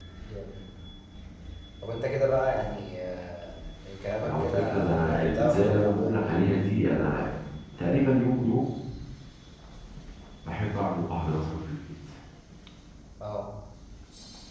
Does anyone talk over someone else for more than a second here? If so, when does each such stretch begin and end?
4.2-6.1

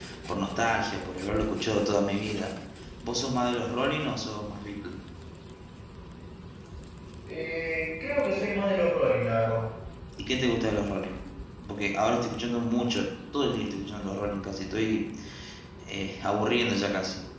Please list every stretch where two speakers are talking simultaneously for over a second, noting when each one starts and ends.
none

